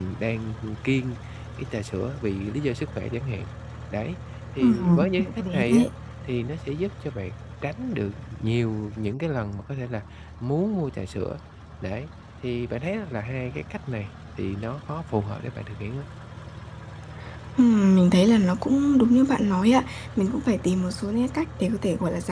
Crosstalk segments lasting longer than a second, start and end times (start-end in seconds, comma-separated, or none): 4.6-5.8